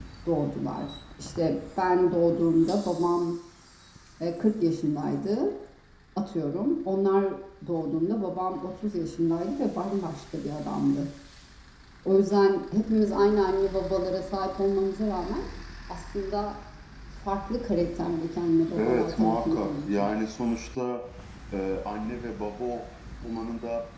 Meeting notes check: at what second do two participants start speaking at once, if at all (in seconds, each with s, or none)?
18.8 s